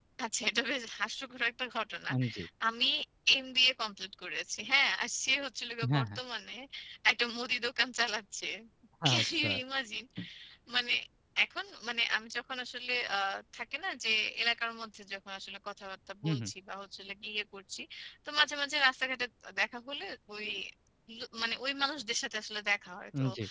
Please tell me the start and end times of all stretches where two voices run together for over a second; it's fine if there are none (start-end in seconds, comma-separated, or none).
none